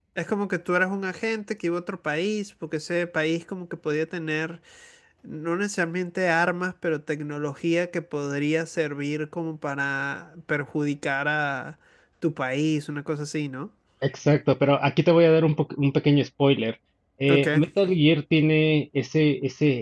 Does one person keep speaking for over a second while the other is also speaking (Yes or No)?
No